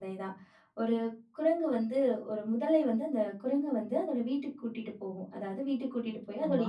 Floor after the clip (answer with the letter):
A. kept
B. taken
A